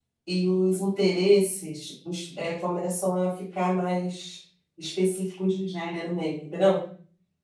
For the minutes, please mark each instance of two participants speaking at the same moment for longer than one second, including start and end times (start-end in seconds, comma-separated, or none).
none